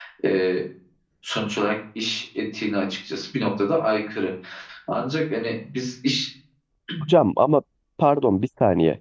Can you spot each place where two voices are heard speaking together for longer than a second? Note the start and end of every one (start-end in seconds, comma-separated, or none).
none